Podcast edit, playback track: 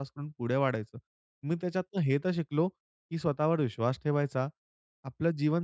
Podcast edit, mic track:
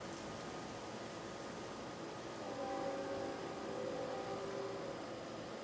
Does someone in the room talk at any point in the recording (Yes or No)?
No